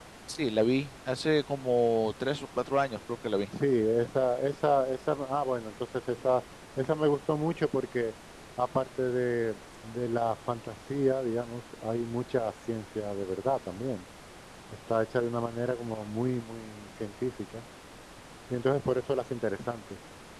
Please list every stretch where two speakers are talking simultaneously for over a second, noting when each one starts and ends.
none

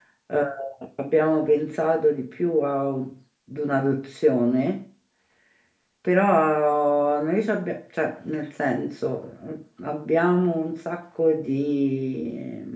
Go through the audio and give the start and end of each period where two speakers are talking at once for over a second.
none

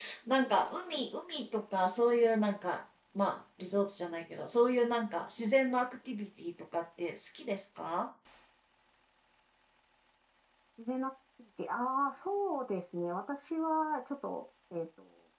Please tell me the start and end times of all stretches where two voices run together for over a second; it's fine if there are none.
none

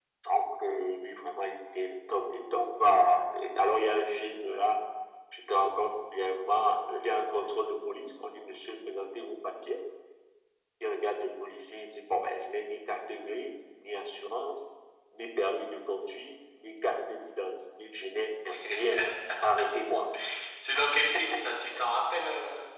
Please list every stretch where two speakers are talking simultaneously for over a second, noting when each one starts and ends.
none

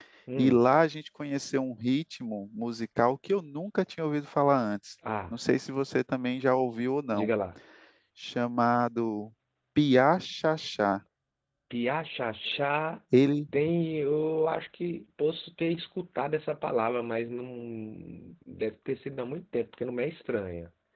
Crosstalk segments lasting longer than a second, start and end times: none

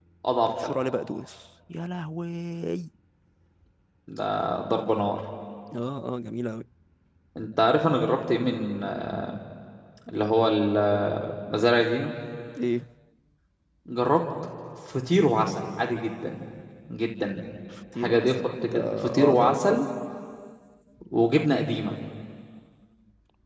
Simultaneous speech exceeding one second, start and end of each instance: 18.0-19.9

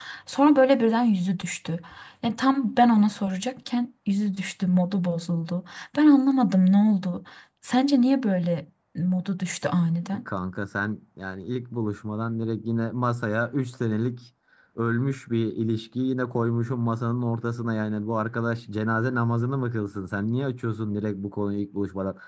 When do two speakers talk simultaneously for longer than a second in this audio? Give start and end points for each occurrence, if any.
none

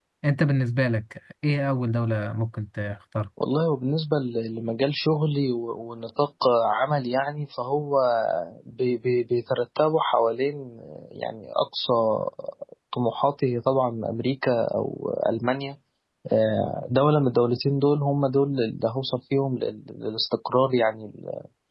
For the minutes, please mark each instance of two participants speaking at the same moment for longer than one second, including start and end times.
none

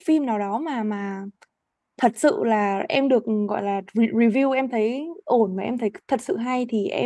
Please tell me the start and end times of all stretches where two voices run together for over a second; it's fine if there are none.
none

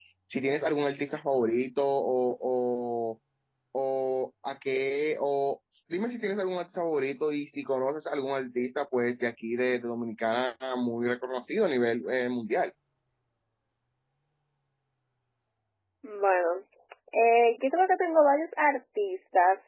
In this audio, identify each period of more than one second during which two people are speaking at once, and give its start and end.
none

